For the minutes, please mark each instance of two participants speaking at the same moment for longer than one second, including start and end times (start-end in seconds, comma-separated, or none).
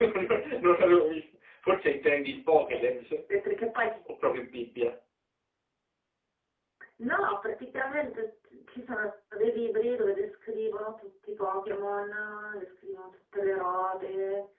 none